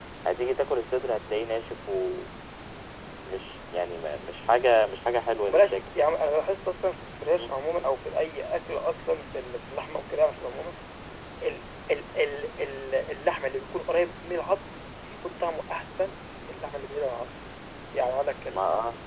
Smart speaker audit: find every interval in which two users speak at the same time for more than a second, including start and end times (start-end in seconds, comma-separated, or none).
none